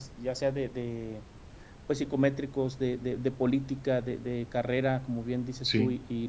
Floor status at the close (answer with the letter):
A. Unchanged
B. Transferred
A